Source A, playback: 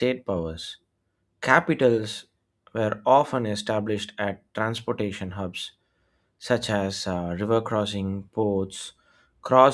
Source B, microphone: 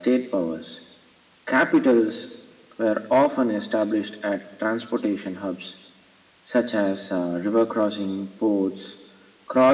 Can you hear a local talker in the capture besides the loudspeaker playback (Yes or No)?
No